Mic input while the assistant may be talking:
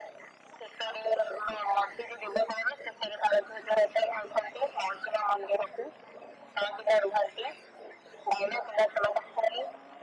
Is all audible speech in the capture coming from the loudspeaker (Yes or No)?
Yes